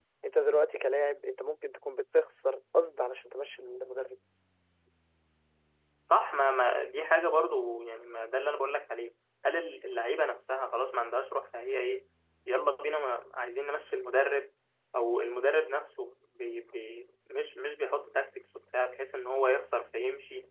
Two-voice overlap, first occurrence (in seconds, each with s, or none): none